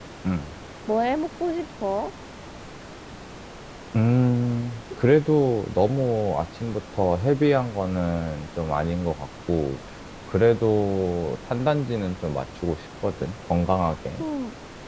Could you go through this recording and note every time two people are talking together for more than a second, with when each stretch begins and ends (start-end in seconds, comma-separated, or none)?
none